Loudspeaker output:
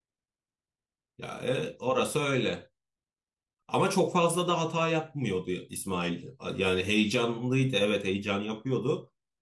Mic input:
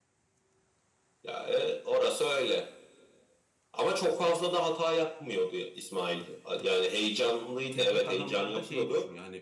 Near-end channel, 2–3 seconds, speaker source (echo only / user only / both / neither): echo only